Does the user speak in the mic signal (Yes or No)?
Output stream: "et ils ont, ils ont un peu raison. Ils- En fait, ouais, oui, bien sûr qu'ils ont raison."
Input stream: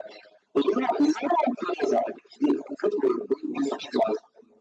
No